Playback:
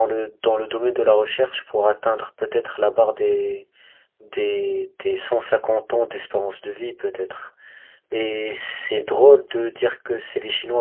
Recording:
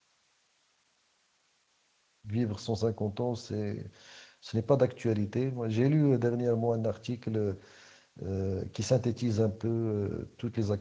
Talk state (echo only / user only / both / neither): user only